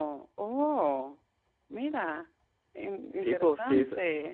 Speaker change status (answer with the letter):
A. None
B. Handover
B